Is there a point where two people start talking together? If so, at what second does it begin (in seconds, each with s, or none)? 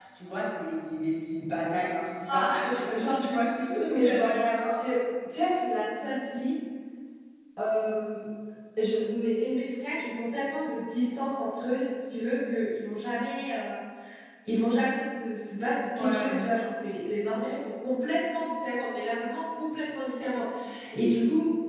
2.3 s